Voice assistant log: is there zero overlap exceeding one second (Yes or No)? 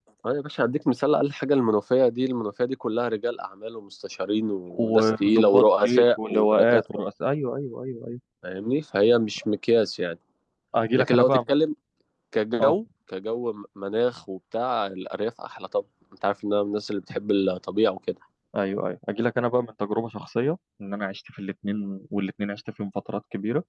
No